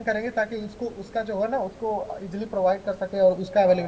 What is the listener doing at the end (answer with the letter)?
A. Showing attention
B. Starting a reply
B